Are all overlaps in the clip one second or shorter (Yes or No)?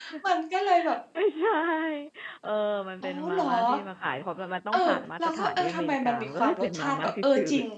No